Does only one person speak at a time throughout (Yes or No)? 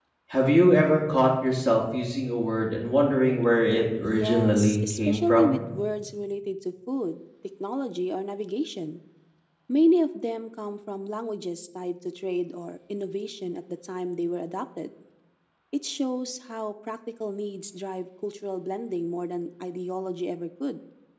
No